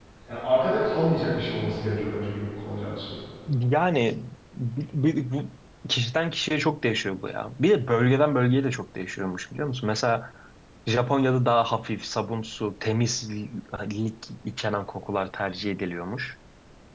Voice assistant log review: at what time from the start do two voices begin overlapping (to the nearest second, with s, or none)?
none